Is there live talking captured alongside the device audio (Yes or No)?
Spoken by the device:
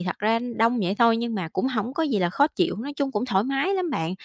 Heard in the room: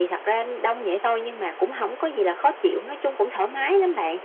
No